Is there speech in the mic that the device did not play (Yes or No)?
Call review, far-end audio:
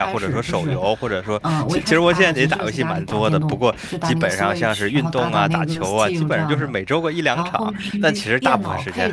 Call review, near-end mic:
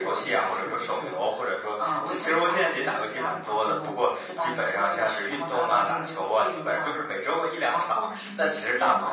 No